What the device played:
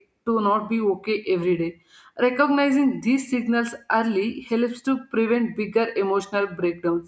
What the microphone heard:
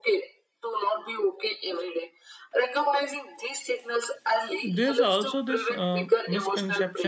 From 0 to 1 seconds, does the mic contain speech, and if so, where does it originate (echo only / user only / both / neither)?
echo only